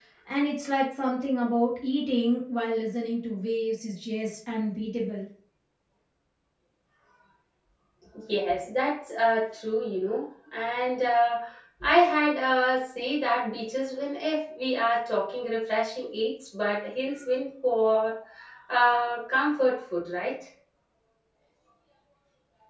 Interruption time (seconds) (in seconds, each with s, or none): none